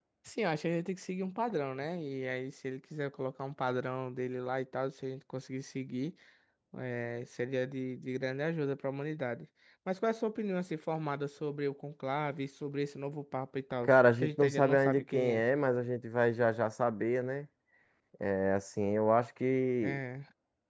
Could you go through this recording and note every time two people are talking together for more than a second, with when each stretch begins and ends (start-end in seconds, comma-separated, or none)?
13.8-15.4